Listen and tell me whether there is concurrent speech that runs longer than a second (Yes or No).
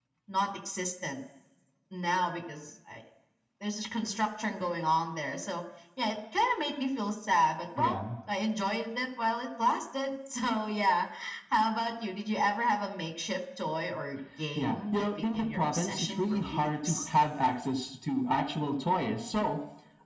Yes